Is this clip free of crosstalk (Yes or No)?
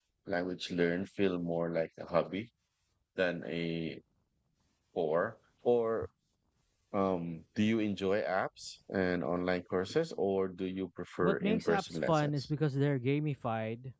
No